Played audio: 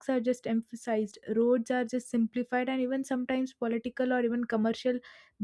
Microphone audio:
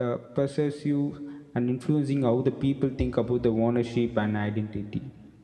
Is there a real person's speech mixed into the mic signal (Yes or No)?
Yes